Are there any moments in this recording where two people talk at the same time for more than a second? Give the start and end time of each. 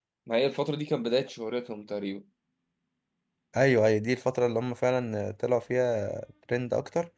none

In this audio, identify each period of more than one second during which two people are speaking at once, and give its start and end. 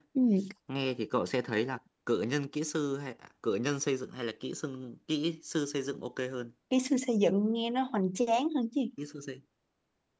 none

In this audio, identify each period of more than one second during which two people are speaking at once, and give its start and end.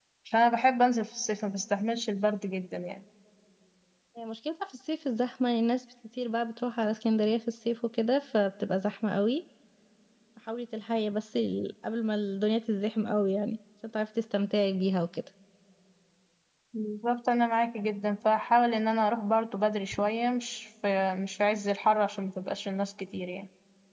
none

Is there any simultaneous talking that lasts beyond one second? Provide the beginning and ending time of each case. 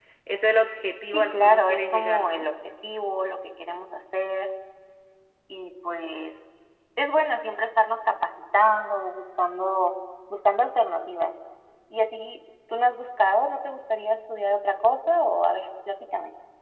1.1-2.5

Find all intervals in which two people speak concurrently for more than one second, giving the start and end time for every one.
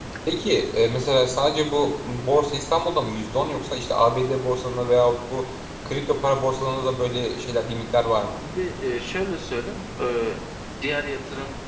none

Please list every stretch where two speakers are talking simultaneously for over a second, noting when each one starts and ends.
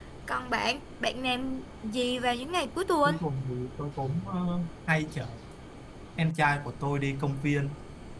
none

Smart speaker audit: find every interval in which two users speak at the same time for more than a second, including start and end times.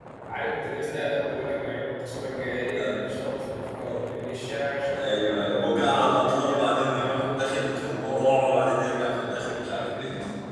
5.0-8.4

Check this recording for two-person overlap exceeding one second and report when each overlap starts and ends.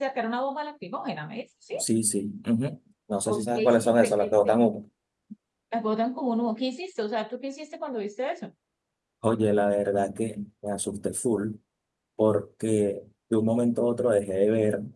3.2-4.5

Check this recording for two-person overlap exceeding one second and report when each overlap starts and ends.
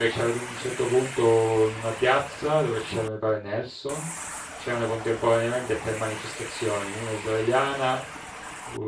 none

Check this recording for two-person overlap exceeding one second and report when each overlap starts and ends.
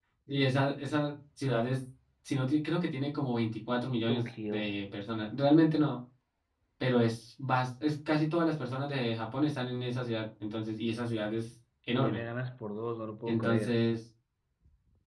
none

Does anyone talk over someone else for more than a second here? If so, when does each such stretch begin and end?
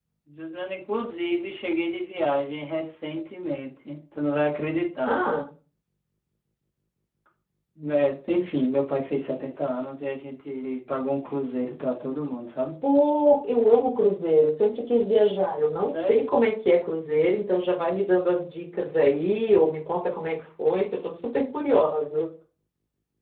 none

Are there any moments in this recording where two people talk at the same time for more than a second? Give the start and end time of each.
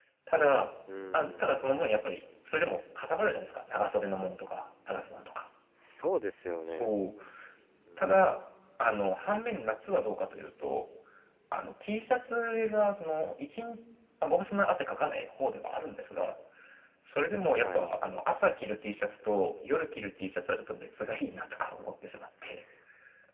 none

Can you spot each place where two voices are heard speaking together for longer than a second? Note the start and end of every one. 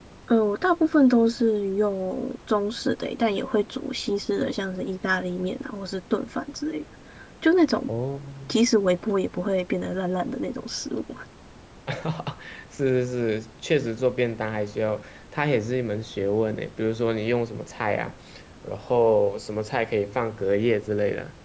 none

